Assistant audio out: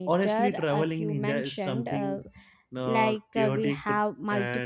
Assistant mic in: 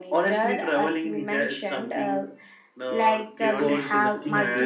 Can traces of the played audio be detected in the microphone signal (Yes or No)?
Yes